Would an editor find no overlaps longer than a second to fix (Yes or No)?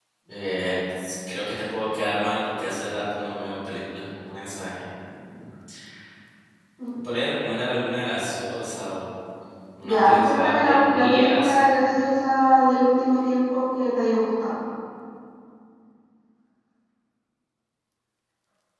No